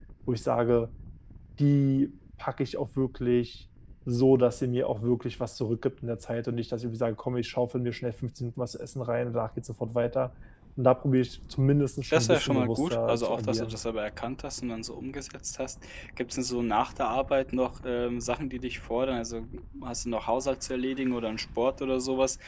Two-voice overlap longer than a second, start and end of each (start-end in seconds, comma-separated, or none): 12.1-13.8